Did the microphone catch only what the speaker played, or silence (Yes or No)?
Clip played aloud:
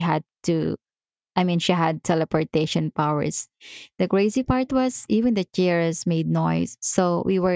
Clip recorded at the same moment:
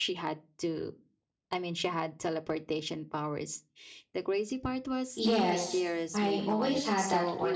No